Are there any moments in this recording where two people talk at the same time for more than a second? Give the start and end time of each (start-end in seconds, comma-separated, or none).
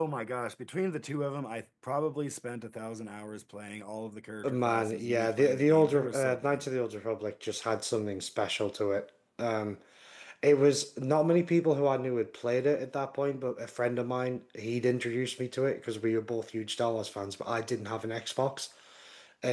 4.5-6.6